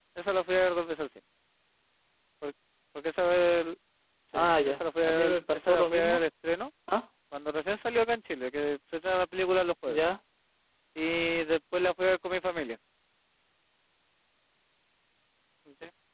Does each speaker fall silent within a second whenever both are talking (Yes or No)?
No